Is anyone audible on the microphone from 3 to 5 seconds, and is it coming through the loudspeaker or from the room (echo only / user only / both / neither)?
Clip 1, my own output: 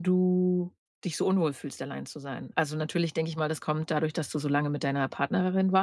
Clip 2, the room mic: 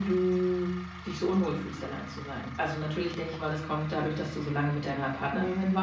echo only